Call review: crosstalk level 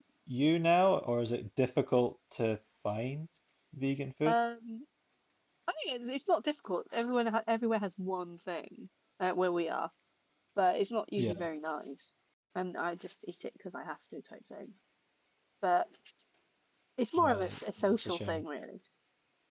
present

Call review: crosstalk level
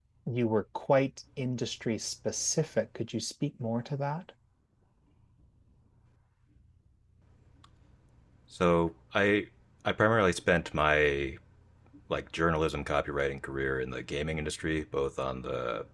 none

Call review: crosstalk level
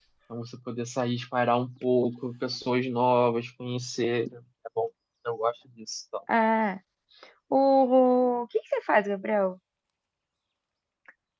none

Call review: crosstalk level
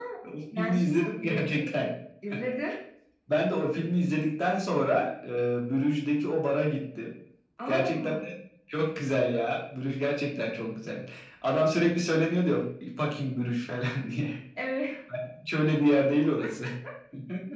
present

